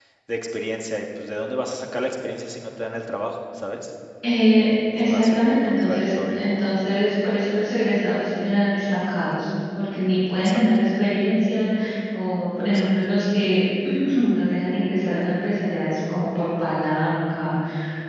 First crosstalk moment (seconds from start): 5.0 s

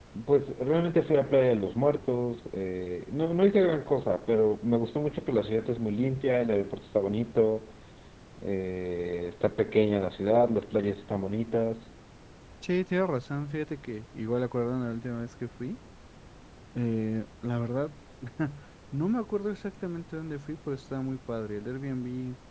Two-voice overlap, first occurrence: none

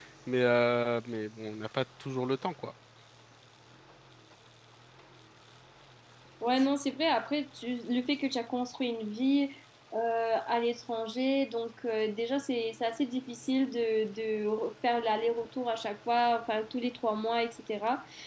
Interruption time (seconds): none

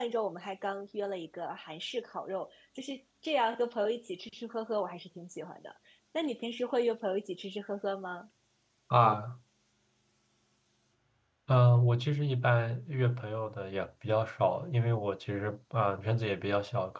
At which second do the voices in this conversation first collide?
none

